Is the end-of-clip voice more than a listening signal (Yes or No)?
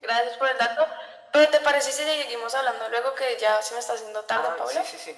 Yes